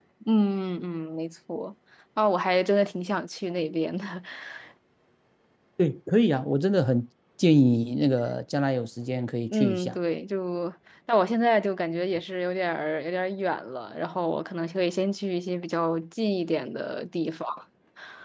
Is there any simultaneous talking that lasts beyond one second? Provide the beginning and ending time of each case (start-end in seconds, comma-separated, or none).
none